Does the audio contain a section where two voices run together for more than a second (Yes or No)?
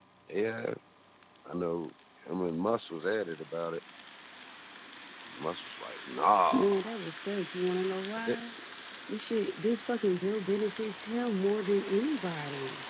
No